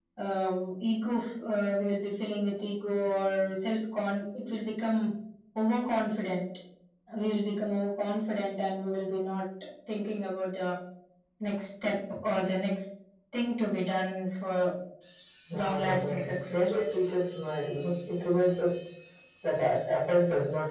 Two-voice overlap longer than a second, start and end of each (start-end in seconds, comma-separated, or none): 15.5-16.8